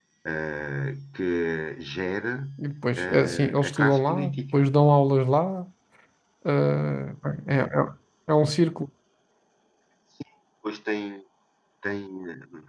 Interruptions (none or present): present